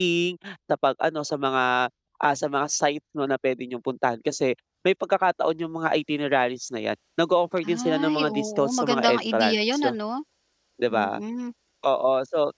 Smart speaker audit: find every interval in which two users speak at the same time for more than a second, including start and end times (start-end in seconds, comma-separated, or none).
7.7-9.8